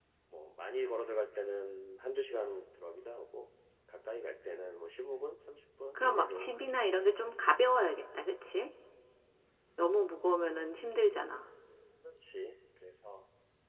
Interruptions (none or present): present